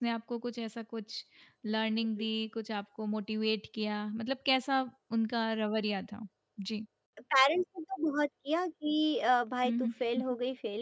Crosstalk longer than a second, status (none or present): none